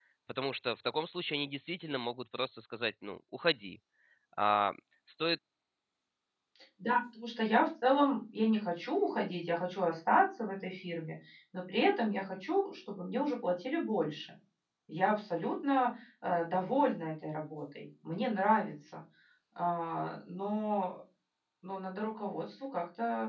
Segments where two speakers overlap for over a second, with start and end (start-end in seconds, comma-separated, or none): none